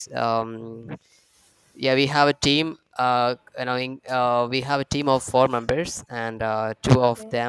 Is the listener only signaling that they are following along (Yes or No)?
Yes